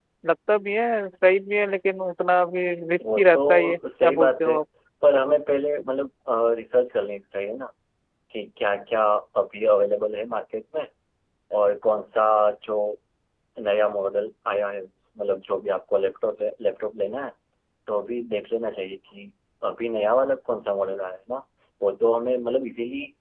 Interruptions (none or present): present